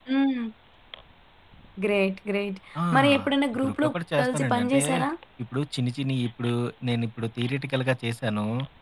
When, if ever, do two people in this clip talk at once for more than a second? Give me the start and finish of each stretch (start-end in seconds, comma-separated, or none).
3.6-4.8